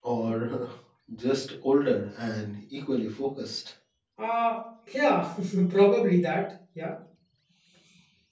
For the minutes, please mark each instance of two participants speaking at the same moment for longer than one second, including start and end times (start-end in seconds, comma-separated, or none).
none